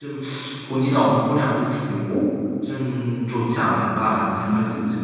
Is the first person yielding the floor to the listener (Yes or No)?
Yes